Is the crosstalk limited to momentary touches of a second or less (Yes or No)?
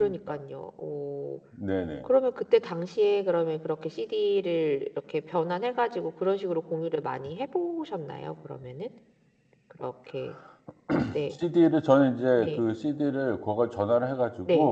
Yes